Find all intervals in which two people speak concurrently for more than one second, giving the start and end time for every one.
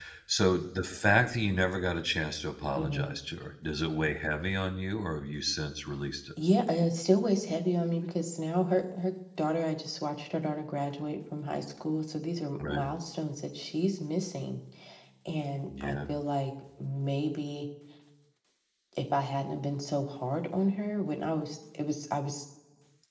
none

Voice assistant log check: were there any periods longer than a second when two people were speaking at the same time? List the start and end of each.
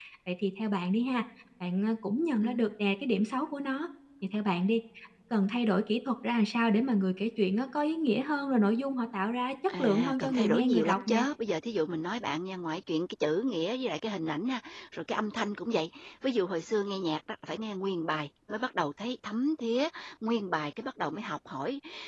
9.8-11.2

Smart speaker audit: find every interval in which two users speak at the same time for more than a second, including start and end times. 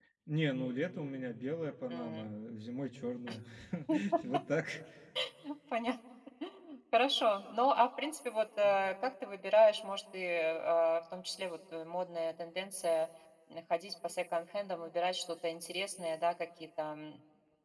none

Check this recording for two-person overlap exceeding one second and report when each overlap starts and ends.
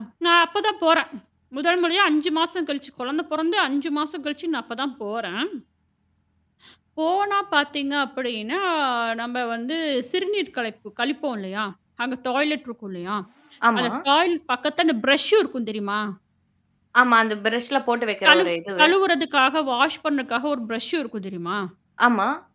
none

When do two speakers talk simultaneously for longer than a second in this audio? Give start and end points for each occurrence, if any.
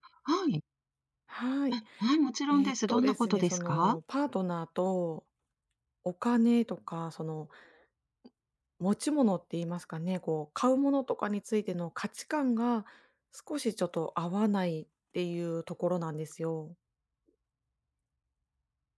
2.5-4.0

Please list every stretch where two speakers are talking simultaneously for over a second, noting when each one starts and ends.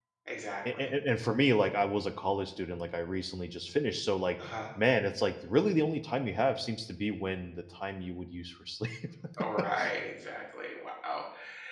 none

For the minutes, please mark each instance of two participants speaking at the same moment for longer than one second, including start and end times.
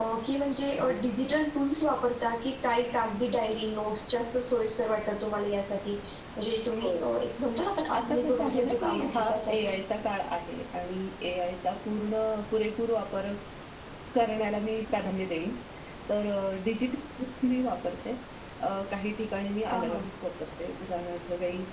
8.0-9.8

